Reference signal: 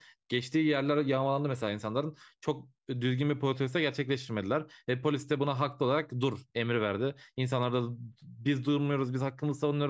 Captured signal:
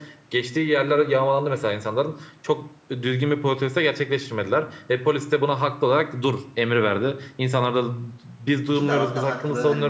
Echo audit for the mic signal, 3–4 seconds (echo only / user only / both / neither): echo only